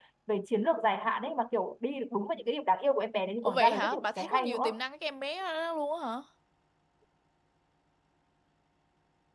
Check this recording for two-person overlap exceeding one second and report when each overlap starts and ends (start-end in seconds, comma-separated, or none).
3.4-4.7